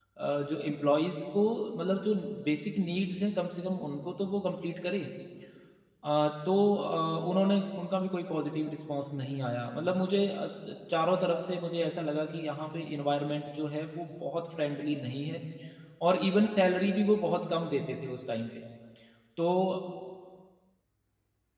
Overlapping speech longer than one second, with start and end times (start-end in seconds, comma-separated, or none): none